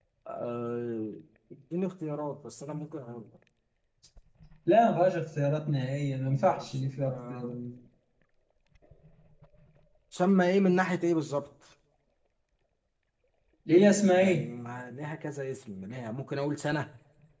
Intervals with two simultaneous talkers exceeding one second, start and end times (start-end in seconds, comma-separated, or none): 6.3-7.5